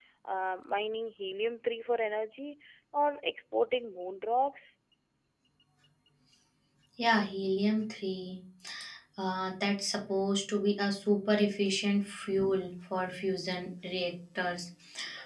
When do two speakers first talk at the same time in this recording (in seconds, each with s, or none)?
none